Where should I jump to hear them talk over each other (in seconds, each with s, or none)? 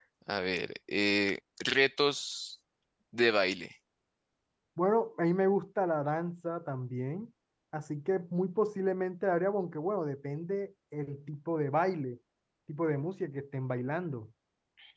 none